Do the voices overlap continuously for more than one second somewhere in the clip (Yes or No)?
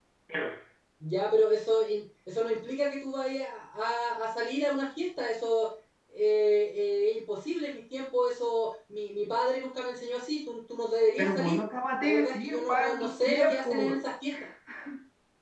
Yes